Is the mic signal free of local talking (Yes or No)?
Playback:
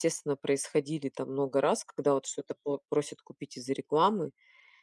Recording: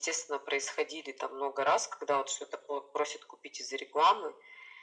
Yes